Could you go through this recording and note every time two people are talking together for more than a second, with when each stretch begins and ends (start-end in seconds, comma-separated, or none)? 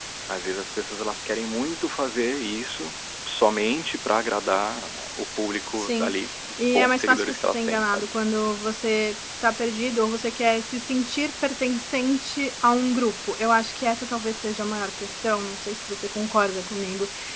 6.6-8.1